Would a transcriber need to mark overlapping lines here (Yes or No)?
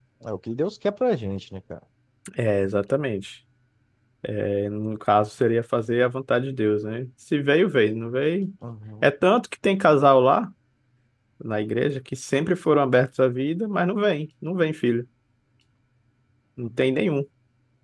No